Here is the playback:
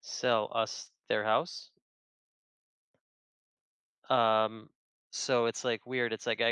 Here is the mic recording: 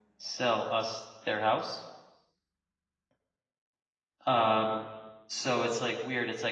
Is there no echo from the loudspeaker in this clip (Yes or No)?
No